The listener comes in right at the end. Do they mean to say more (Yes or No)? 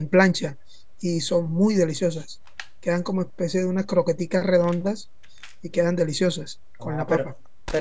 Yes